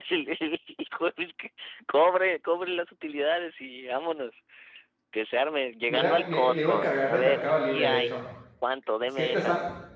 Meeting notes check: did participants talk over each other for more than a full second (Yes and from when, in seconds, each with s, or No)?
Yes, from 5.9 s